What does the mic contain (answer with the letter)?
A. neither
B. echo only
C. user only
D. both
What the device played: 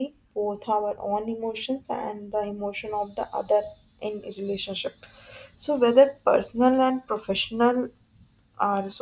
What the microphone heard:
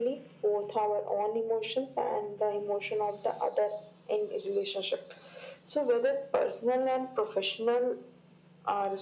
B